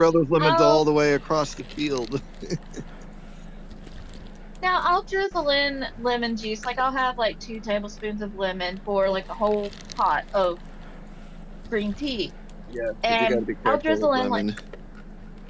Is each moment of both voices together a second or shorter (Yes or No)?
No